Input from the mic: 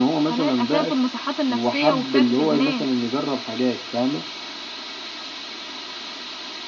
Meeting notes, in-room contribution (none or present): none